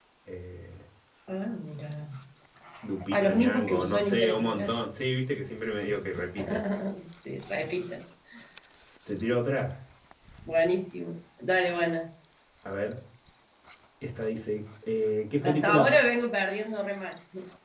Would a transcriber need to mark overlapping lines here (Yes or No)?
Yes